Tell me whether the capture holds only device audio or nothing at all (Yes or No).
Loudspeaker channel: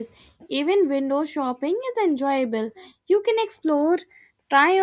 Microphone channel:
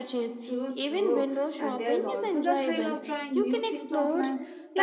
No